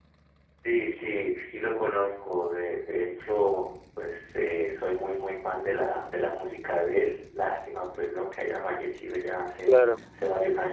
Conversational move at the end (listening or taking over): listening